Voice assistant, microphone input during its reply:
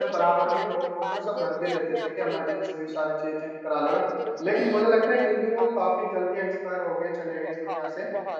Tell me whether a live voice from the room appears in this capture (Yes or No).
Yes